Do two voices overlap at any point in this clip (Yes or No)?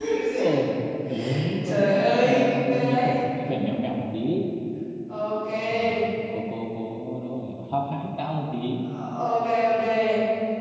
Yes